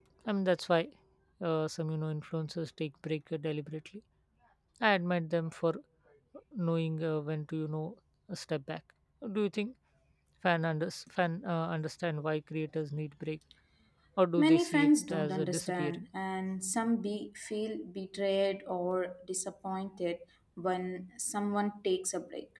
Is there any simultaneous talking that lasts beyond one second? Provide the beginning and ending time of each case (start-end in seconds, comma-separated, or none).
14.4-16.0